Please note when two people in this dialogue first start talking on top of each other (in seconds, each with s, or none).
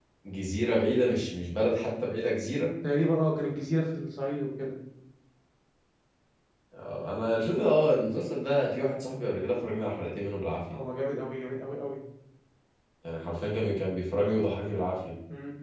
none